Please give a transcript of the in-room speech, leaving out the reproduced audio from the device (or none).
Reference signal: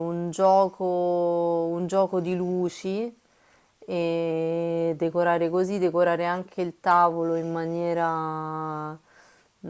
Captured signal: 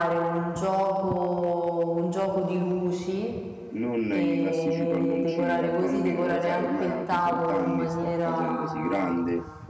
non i classici palloncini da bambino, lo sai, ormai ha 18 anni, sta facendosi grande,